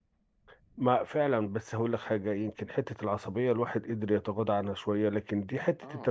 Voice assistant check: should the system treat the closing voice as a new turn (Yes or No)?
No